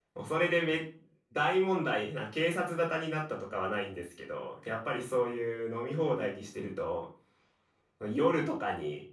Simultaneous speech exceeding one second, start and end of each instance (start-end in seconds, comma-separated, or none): none